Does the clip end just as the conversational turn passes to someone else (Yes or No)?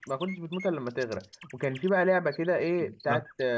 No